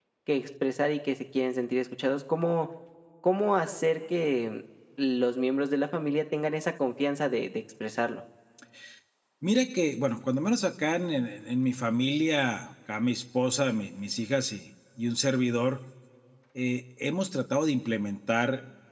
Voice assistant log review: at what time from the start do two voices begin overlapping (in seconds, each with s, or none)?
none